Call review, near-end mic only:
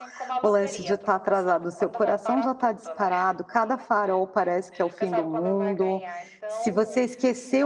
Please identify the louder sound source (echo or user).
user